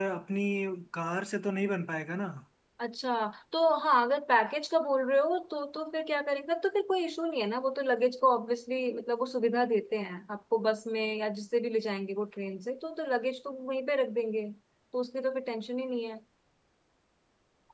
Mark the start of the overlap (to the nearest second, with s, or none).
none